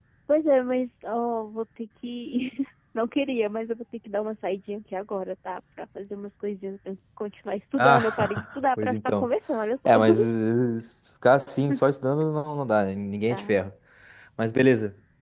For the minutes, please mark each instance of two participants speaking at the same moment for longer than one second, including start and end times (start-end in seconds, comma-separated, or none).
7.8-9.3